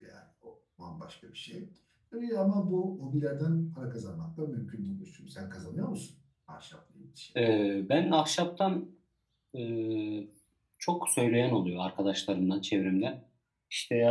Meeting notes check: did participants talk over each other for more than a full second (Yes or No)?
No